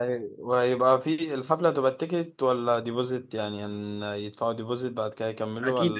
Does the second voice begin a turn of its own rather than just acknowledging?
Yes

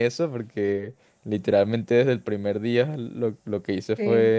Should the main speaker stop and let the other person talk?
No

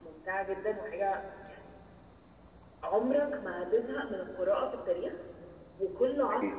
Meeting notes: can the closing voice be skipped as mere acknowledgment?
Yes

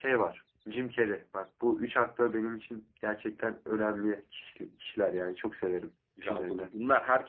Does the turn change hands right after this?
Yes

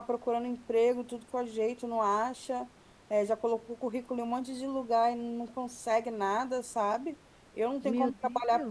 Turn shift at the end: No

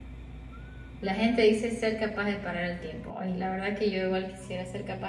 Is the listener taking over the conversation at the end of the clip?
No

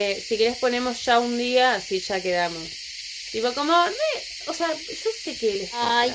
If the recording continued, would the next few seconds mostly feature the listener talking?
Yes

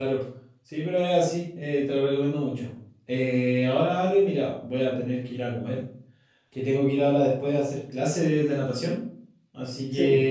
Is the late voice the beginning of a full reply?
No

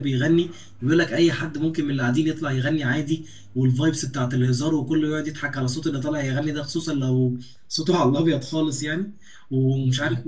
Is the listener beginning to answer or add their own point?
No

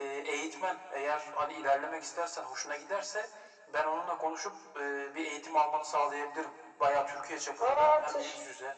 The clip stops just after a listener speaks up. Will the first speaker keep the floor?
Yes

